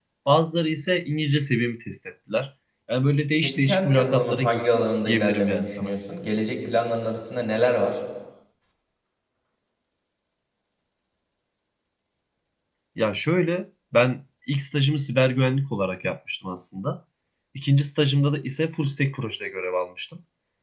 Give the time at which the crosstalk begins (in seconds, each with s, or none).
3.4 s